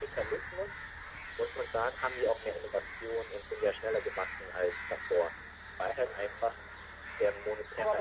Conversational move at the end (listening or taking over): taking over